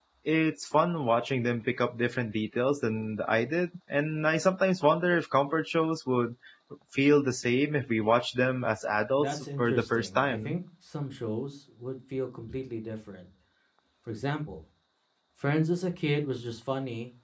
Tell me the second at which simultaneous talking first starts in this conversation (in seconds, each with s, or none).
9.2 s